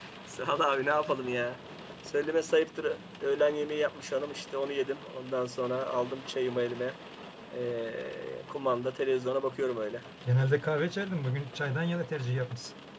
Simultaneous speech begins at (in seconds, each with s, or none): none